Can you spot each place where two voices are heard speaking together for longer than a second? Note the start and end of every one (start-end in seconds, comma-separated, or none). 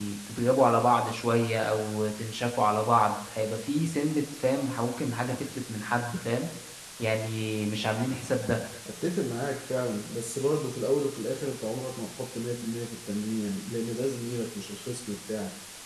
none